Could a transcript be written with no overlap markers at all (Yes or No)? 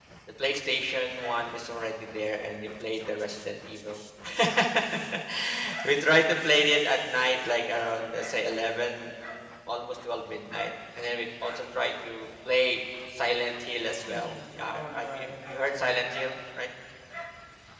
No